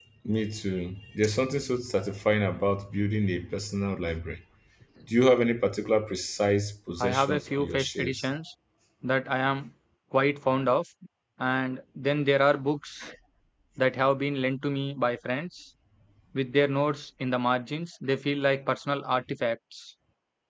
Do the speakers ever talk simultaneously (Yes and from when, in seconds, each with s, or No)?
Yes, from 7.0 s